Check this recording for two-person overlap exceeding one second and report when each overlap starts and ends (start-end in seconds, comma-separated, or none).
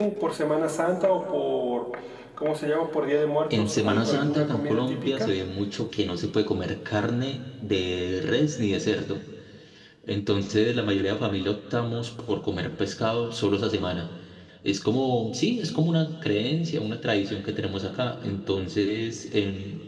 3.6-5.3